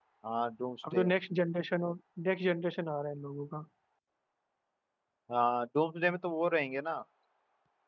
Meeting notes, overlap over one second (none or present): none